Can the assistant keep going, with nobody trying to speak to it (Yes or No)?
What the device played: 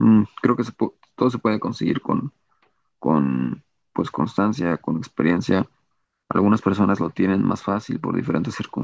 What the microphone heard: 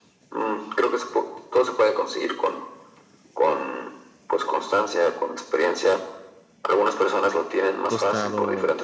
No